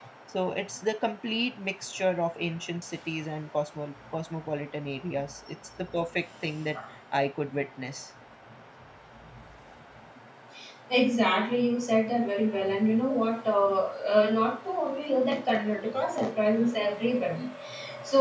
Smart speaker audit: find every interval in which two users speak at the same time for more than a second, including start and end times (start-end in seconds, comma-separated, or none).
none